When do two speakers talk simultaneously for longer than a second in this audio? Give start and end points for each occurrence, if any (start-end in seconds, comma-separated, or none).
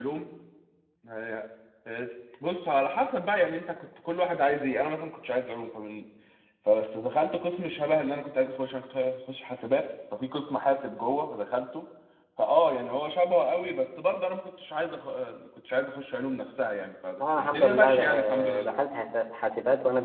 17.2-18.8